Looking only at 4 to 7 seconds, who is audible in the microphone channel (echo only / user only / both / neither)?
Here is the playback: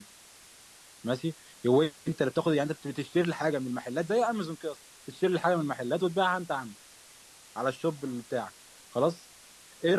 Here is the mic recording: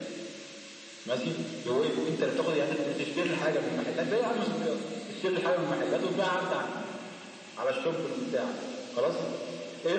echo only